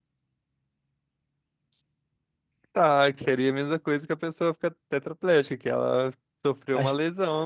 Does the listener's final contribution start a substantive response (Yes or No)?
Yes